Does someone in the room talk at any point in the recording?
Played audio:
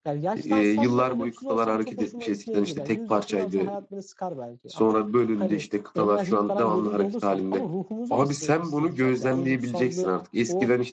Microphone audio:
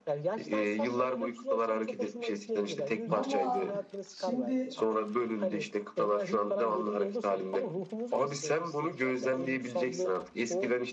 Yes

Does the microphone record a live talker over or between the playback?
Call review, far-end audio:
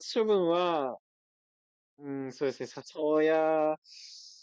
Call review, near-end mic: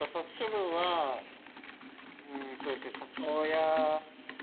No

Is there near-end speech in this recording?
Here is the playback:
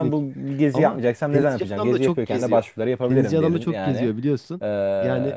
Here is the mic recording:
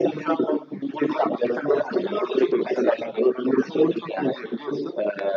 No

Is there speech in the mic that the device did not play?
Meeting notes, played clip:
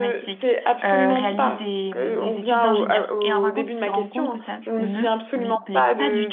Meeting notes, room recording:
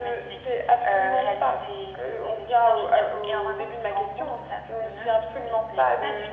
No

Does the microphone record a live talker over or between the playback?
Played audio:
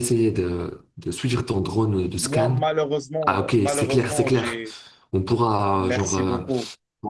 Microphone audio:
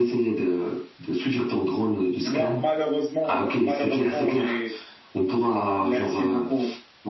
No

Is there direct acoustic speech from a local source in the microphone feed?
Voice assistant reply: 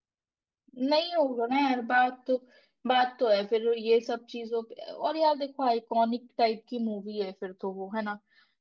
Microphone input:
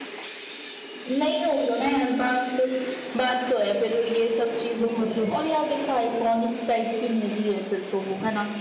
Yes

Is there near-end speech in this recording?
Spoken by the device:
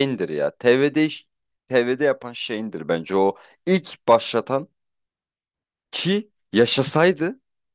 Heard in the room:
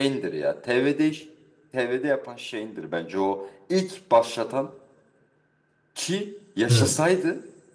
Yes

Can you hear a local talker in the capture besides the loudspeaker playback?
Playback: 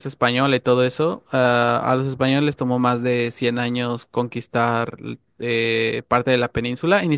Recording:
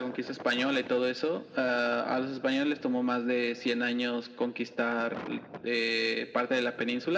No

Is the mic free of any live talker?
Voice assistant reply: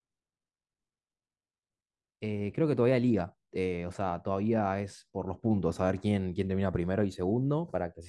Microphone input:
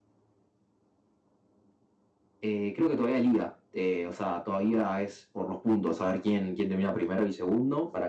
Yes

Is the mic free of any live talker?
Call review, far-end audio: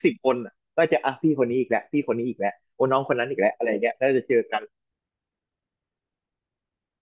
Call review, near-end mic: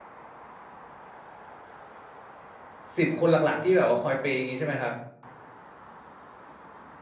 No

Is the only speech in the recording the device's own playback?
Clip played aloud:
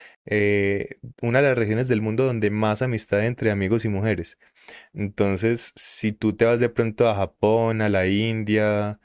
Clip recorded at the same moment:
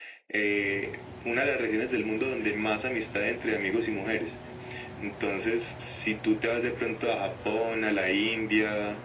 Yes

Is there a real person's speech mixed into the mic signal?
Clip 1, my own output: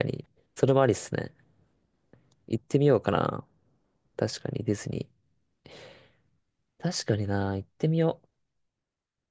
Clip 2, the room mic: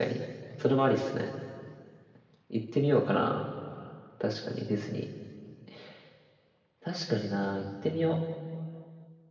No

